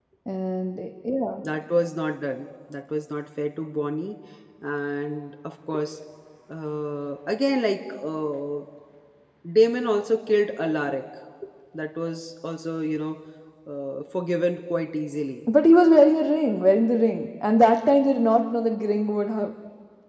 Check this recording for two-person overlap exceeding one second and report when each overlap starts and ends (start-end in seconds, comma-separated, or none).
none